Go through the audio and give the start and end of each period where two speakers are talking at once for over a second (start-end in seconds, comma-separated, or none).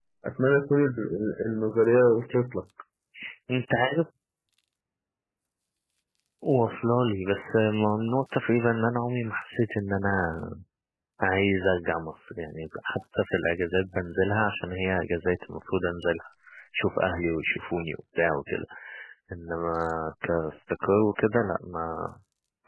none